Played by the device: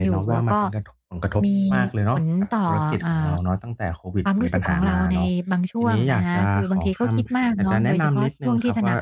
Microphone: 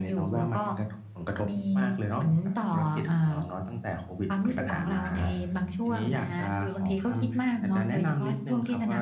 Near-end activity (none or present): present